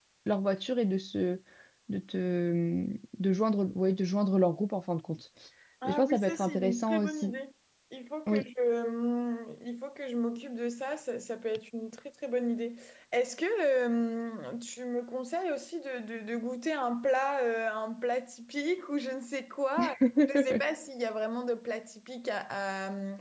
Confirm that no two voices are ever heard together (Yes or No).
No